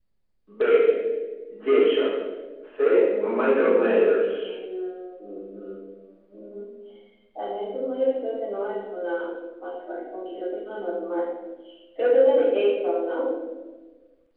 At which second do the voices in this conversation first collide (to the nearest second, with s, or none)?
3 s